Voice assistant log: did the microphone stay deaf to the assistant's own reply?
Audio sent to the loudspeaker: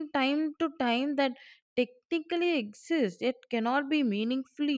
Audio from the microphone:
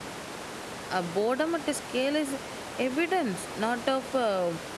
Yes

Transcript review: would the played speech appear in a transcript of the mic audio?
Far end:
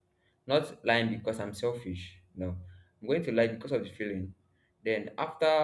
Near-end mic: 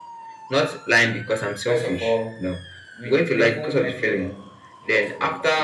Yes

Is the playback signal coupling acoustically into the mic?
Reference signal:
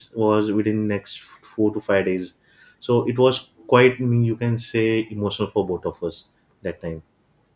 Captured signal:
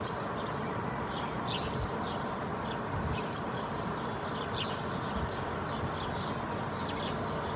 No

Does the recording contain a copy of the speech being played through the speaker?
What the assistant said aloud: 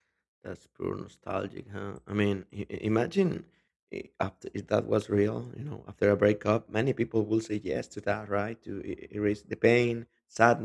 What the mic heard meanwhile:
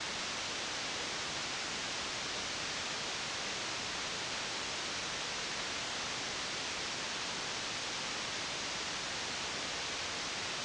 No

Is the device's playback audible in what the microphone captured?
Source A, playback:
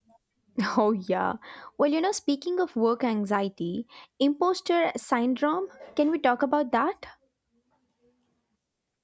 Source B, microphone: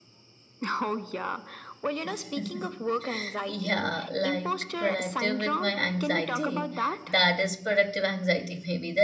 Yes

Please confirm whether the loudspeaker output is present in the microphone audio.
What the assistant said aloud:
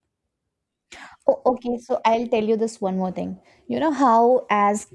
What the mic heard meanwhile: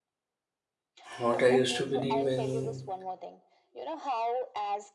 Yes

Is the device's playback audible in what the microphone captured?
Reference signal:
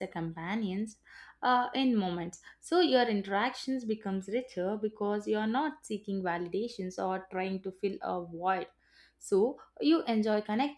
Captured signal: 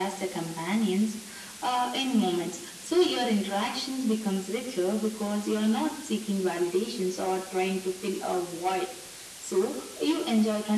Yes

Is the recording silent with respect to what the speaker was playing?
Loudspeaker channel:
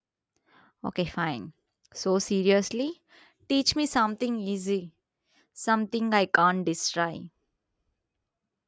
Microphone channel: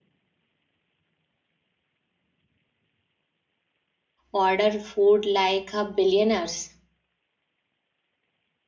Yes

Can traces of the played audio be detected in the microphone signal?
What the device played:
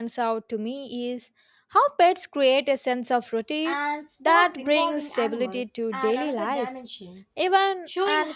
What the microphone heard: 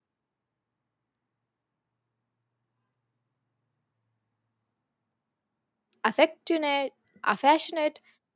No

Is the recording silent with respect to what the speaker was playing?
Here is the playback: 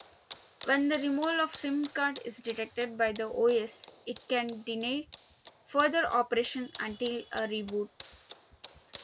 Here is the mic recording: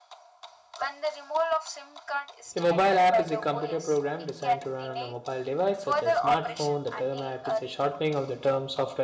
No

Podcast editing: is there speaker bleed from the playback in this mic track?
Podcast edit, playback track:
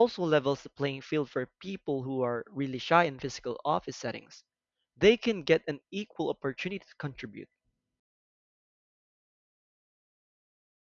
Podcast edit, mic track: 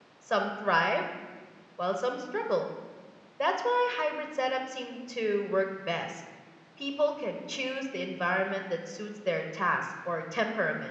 No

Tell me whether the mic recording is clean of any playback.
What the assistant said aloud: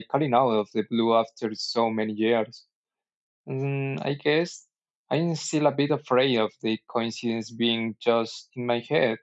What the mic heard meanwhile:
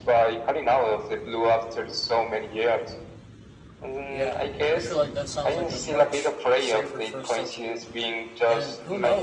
No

